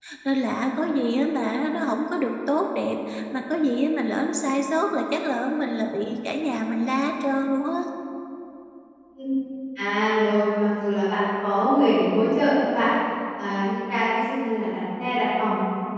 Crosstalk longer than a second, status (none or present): none